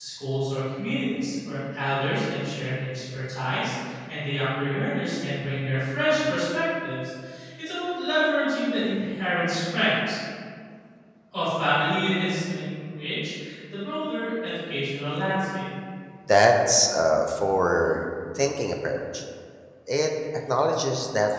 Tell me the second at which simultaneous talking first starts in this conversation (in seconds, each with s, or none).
none